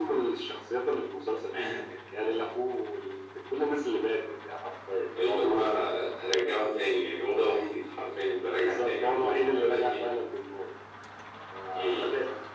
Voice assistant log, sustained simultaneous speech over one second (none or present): present